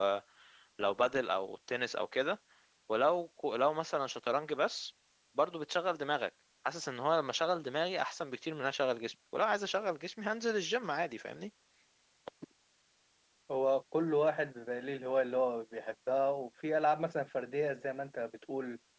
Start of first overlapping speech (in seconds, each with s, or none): none